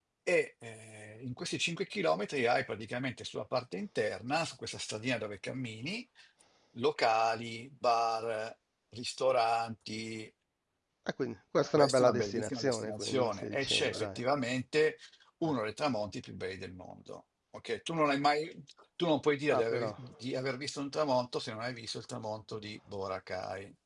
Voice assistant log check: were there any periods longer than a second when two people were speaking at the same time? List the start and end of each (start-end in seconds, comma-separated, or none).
11.8-14.2